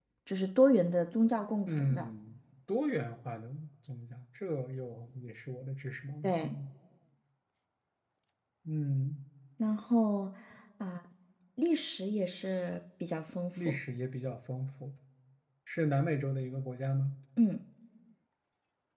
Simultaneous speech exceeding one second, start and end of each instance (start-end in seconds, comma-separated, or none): none